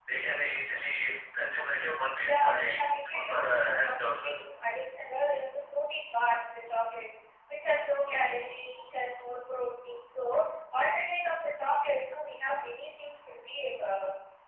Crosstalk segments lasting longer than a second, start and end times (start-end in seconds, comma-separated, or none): 2.2-4.3